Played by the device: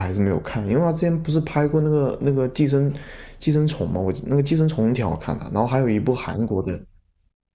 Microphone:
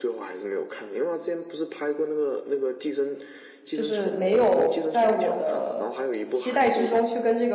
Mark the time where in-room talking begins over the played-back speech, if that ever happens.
4 s

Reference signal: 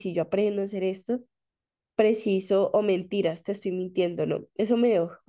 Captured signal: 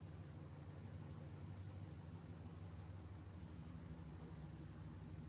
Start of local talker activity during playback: none

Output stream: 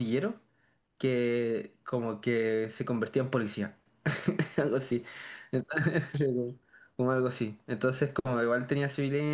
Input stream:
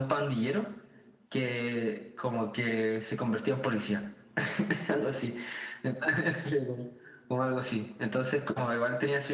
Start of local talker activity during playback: none

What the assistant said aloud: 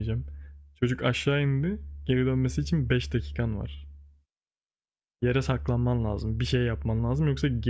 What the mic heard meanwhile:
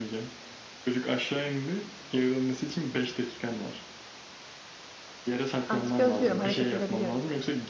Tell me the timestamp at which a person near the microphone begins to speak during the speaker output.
6 s

